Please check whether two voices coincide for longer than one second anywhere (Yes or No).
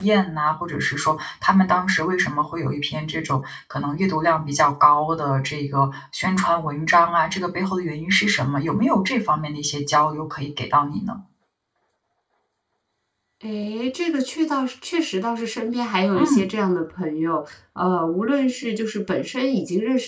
No